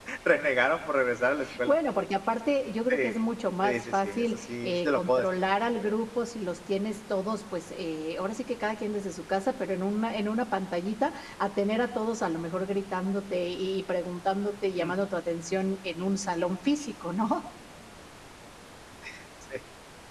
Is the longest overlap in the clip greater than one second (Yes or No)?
Yes